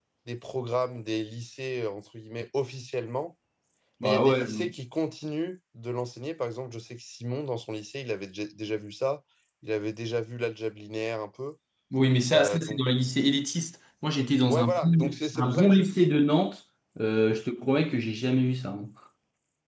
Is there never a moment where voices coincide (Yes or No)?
No